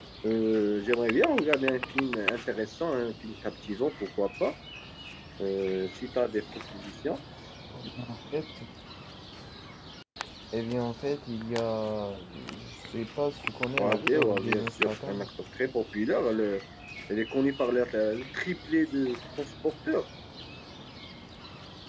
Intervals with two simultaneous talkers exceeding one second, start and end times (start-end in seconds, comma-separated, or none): 13.8-15.3